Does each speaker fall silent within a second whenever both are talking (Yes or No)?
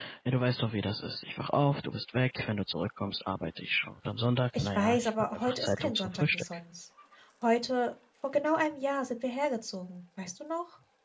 No